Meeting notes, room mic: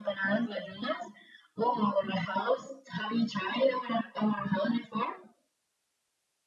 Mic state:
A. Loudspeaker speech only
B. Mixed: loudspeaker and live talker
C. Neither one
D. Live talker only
A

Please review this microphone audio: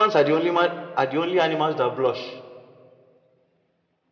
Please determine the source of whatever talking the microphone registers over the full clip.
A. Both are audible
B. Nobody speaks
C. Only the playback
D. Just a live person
D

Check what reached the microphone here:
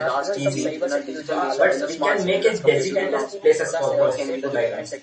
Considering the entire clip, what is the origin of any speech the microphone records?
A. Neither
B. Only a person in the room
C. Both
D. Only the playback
C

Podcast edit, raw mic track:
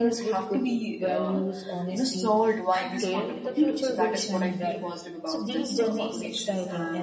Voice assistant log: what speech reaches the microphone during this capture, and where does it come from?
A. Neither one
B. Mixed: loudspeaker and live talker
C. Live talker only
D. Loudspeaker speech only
B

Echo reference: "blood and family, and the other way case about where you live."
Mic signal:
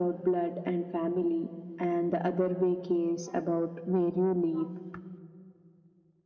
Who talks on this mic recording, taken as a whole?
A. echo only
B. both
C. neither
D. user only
A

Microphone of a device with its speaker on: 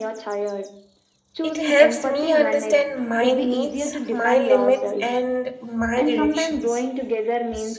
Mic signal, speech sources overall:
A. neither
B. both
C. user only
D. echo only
B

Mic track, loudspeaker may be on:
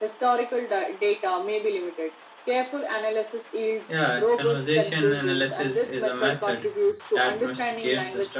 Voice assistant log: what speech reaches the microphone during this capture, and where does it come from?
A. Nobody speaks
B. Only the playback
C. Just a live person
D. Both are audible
D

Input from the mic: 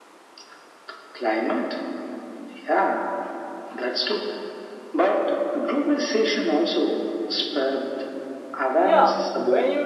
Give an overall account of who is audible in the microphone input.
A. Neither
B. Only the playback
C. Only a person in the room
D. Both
D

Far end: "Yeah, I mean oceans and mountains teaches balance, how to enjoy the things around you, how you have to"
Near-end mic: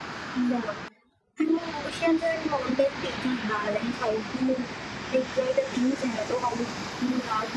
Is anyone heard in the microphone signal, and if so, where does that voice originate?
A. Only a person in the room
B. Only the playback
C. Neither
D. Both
B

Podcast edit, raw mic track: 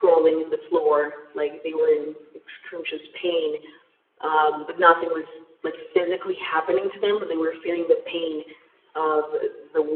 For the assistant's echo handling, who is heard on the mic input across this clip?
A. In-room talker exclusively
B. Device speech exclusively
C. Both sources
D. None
B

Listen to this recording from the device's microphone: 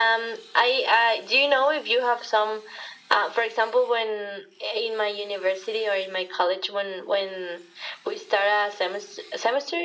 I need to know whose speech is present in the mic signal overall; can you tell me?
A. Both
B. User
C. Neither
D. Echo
D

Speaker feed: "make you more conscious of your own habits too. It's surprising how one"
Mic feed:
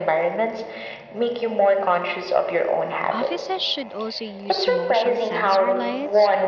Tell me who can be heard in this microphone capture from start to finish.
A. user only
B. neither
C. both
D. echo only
C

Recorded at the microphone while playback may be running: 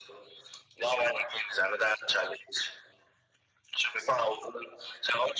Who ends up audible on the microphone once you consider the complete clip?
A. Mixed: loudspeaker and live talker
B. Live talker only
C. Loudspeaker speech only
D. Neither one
C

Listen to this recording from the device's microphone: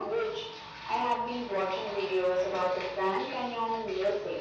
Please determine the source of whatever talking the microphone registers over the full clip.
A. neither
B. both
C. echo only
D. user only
C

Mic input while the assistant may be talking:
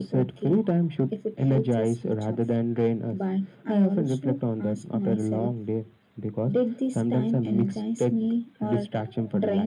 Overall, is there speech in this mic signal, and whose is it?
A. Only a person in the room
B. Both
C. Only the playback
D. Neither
C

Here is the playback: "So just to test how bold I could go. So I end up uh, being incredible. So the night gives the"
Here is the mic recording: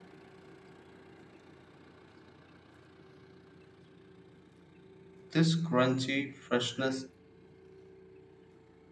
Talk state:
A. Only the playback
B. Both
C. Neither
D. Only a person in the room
D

